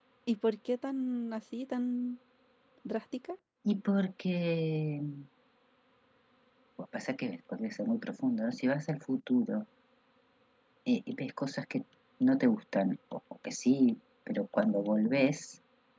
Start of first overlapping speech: none

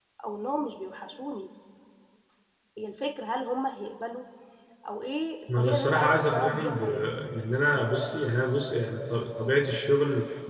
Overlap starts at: 5.6 s

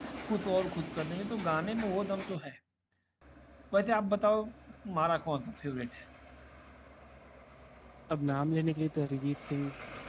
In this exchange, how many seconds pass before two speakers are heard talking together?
none

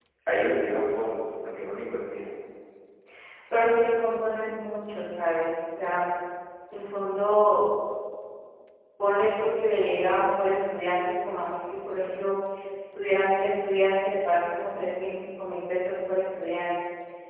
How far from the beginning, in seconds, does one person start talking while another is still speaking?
none

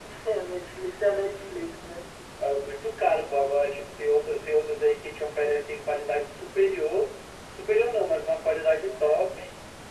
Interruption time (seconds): none

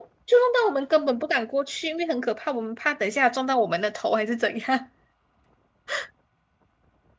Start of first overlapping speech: none

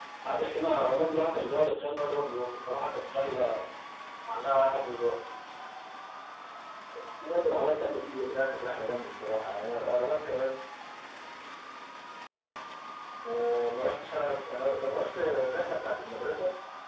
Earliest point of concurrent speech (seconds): none

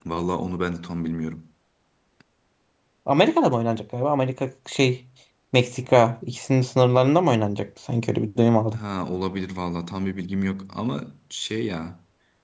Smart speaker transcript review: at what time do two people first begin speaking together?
none

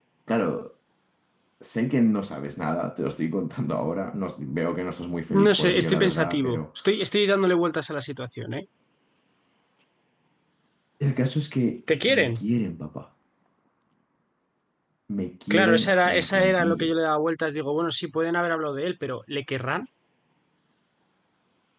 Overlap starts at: 5.3 s

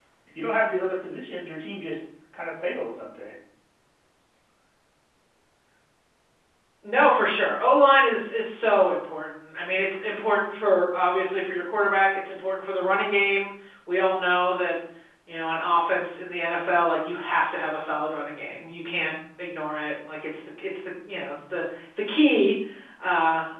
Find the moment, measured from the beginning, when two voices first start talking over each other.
none

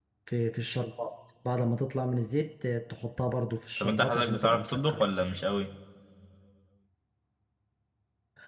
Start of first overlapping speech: 3.8 s

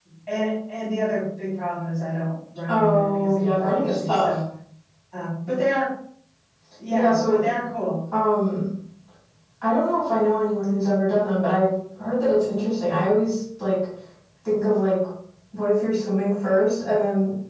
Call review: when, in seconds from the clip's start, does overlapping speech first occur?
2.7 s

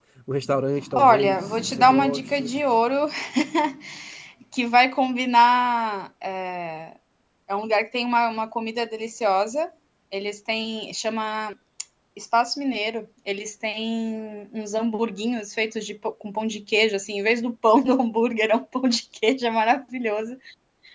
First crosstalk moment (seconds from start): 0.9 s

